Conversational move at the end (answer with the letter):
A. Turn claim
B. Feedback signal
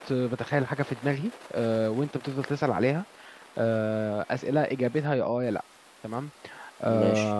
B